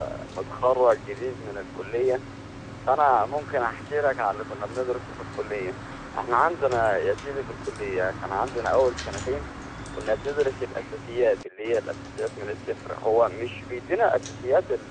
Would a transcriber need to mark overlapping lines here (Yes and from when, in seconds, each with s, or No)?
No